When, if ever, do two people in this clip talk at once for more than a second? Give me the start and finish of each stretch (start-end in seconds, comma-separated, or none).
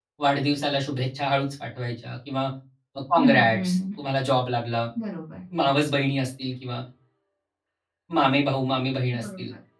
none